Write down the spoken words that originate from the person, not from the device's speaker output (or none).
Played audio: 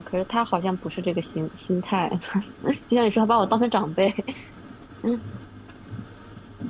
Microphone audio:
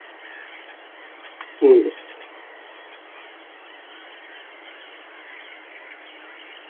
嗯，